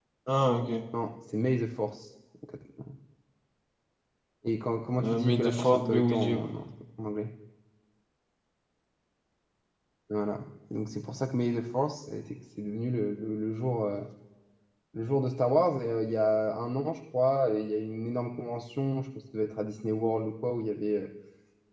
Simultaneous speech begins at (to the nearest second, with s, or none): 5 s